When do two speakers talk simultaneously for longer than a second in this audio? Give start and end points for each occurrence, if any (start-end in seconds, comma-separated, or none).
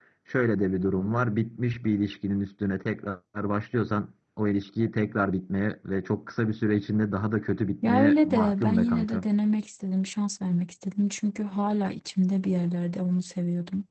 7.9-9.2